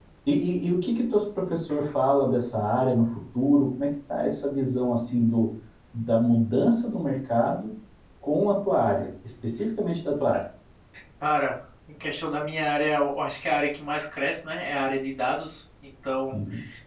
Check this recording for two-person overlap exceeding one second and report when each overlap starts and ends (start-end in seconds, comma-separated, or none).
none